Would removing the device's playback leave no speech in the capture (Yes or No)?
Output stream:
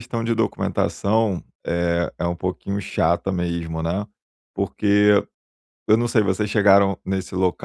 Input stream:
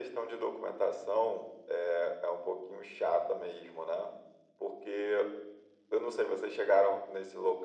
Yes